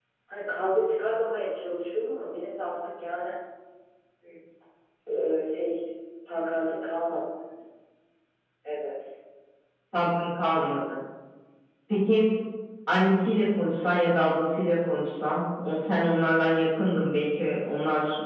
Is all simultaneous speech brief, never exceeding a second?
Yes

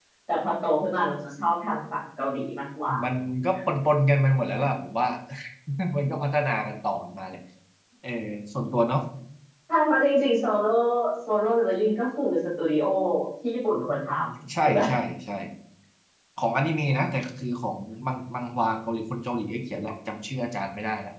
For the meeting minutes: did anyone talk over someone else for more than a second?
No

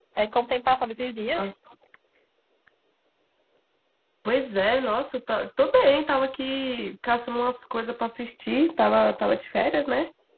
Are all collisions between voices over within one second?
Yes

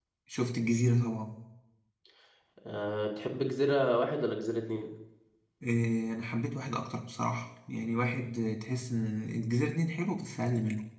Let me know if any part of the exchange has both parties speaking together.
No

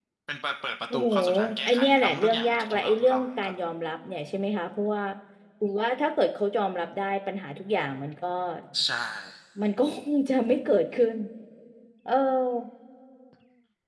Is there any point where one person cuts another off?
Yes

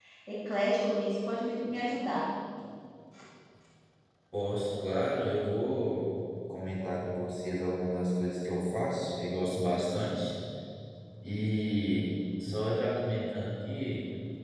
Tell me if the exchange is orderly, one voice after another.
Yes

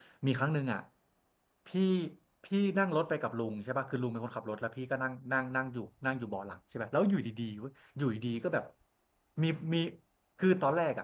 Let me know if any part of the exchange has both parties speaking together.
No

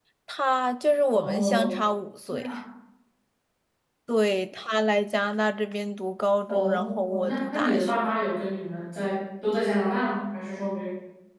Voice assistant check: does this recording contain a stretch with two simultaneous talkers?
Yes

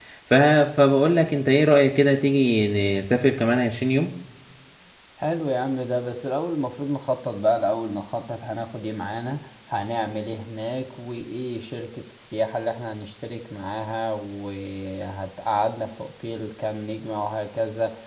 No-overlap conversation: Yes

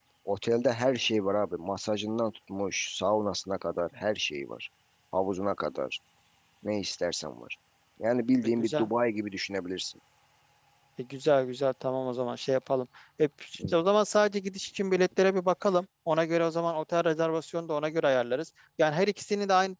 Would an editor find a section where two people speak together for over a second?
No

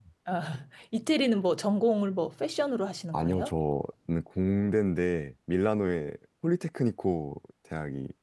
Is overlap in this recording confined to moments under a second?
Yes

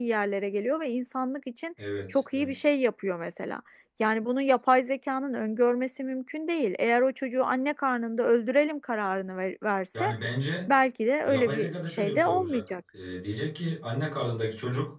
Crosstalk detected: Yes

